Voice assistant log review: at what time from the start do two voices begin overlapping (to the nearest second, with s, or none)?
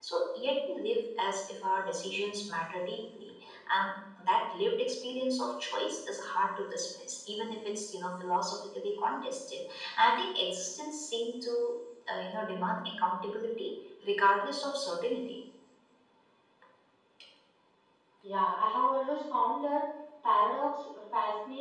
none